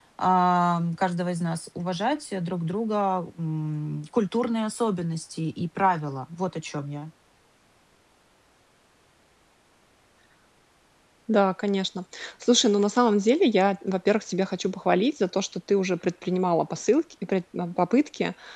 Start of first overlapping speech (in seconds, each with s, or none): none